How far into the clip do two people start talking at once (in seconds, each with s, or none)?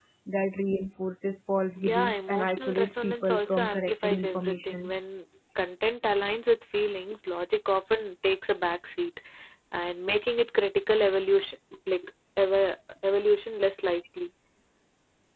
1.8 s